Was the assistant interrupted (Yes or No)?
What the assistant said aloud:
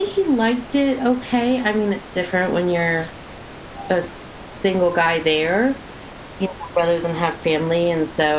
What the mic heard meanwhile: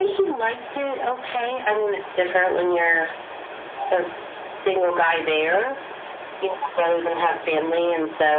No